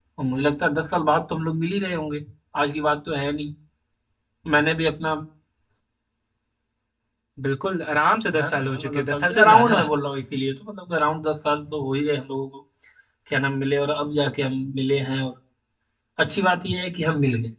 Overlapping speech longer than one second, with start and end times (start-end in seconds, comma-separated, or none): 8.4-9.8